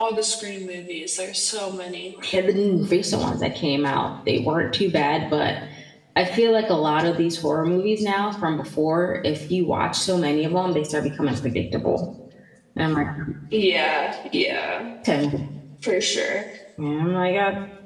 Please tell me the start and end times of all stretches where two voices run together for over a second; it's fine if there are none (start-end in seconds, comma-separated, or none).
none